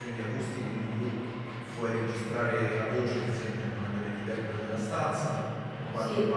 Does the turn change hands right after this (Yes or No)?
No